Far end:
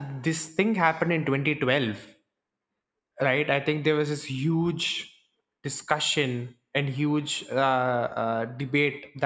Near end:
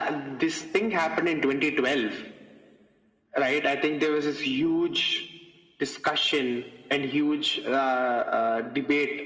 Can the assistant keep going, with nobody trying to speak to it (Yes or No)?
Yes